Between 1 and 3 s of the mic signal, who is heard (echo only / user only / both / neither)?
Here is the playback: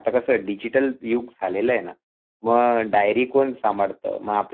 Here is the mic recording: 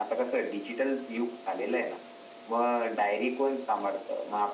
echo only